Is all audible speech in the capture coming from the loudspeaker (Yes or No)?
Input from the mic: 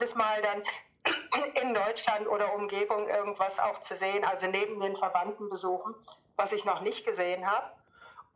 Yes